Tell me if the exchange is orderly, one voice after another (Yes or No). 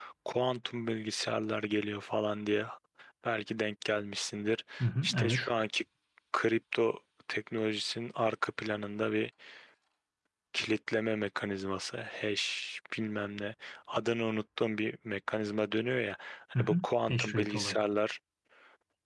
No